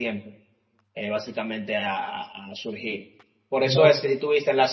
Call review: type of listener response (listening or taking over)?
listening